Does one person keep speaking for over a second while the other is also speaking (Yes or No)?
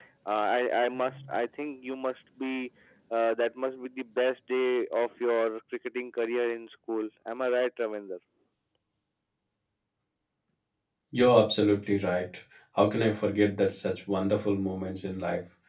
No